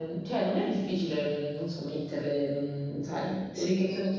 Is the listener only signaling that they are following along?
No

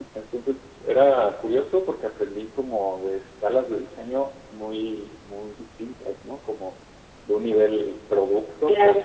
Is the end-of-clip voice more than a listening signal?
No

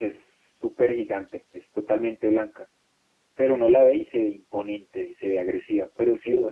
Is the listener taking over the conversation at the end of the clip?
No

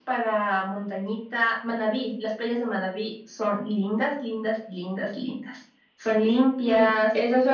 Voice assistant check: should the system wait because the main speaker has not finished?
No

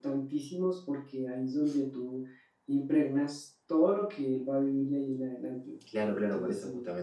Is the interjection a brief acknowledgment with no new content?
No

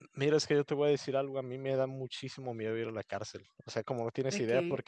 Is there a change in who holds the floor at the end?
No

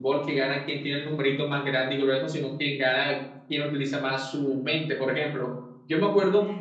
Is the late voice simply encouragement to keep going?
Yes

